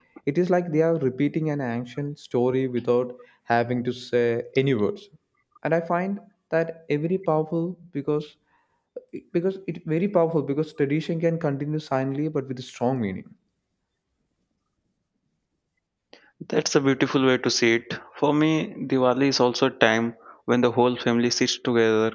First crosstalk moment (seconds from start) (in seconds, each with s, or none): none